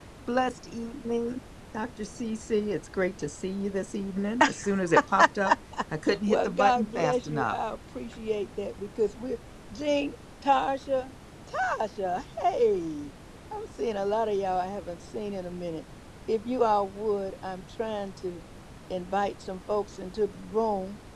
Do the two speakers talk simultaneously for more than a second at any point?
Yes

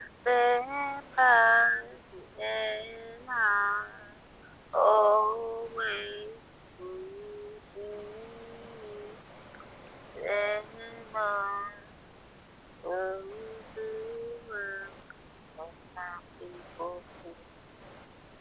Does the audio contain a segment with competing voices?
No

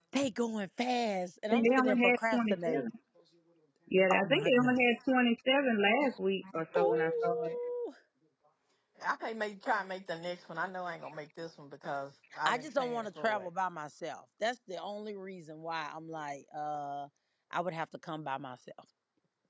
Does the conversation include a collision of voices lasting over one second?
Yes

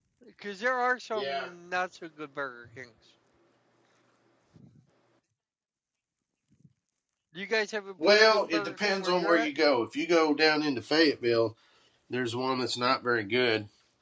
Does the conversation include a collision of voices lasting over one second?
Yes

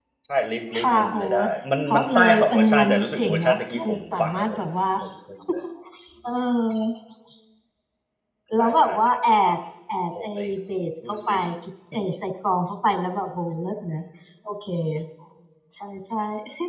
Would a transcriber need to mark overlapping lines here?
Yes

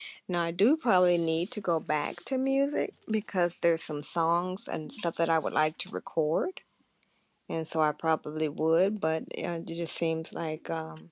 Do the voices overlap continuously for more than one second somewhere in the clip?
No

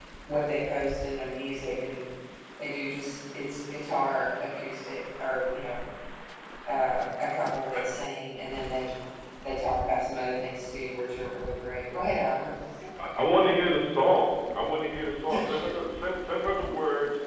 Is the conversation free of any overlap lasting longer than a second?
Yes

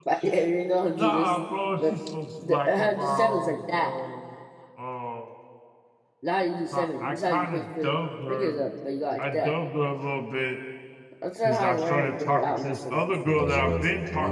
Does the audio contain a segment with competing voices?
Yes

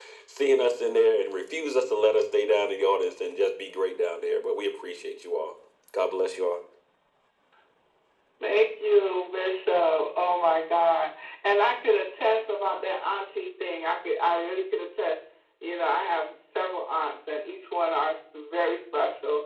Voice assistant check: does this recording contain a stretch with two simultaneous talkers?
No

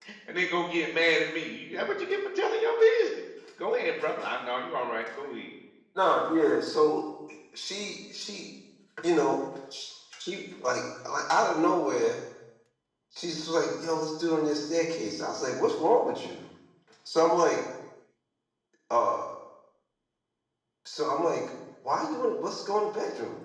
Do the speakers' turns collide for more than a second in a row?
No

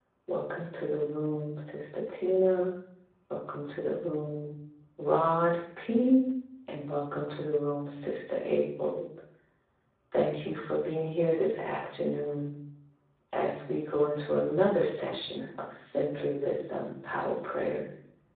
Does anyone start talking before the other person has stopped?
No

